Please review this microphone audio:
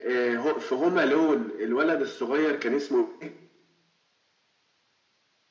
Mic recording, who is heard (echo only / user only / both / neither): echo only